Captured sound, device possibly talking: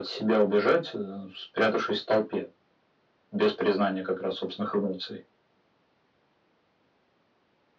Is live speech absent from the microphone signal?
Yes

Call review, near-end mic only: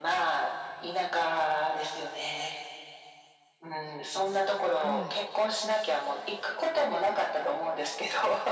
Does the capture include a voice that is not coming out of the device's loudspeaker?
Yes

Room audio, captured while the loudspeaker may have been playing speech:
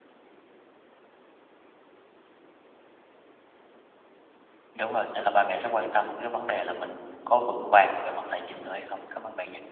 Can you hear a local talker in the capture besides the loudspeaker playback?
Yes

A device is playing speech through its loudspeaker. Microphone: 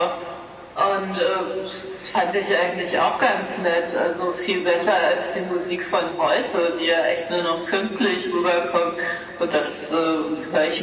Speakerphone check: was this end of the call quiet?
Yes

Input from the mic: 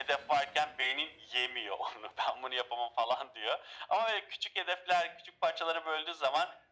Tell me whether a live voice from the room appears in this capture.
No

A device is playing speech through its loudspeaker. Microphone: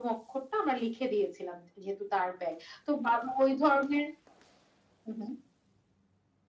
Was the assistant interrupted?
No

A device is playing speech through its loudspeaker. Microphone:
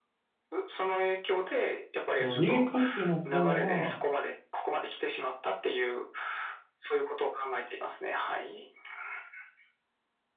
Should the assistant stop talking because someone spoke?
Yes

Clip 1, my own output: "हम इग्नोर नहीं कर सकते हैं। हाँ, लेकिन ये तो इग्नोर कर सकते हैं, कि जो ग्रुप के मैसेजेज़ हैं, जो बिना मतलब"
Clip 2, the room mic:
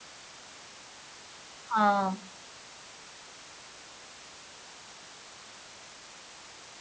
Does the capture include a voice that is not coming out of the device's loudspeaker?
Yes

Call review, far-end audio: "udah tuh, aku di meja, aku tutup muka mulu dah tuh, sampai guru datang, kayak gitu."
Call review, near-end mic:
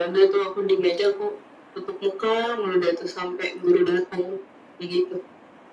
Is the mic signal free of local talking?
Yes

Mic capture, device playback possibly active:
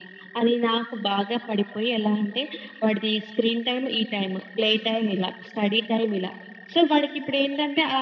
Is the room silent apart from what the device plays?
Yes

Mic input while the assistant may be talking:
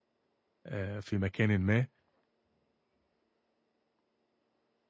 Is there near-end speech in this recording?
Yes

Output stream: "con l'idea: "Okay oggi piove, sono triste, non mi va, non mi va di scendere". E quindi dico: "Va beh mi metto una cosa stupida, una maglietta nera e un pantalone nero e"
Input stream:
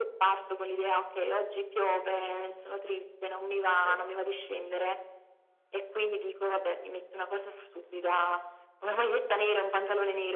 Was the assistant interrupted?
Yes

